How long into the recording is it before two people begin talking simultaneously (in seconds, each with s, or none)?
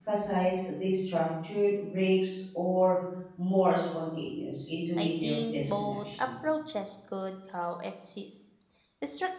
5.0 s